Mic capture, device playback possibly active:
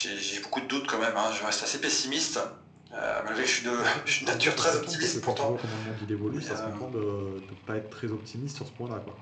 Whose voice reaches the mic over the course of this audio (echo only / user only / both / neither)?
both